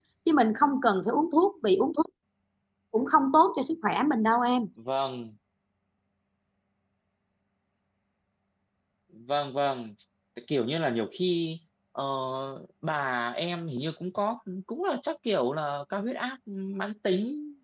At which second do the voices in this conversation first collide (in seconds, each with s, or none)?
none